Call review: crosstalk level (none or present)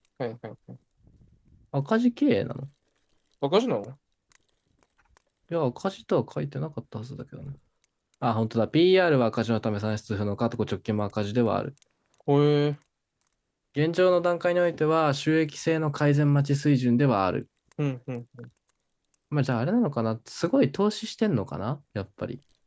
none